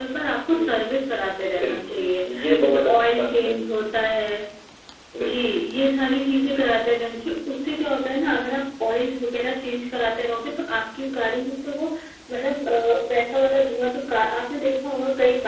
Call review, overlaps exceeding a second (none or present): present